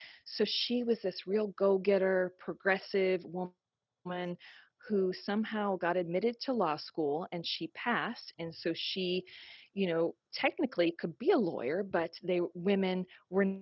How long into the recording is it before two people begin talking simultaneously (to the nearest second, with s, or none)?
none